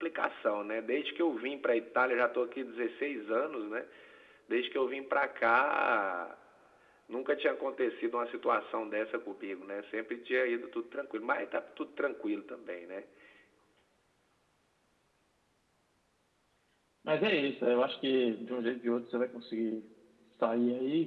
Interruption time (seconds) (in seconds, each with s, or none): none